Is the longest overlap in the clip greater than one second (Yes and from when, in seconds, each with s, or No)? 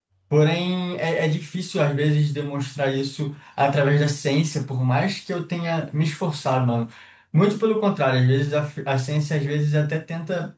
No